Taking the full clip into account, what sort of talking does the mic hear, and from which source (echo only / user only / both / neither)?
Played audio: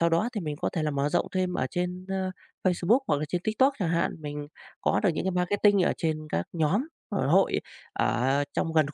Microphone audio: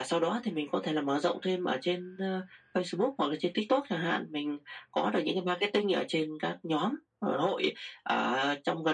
echo only